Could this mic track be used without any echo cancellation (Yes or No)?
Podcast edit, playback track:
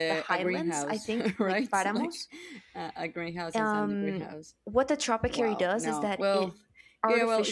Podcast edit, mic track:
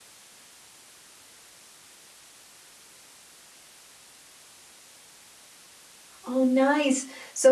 Yes